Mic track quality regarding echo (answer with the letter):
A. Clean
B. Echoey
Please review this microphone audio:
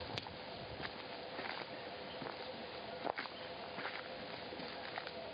A